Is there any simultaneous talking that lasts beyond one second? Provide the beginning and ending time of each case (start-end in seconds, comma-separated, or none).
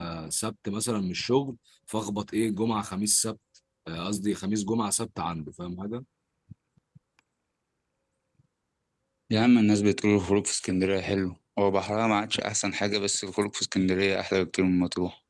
none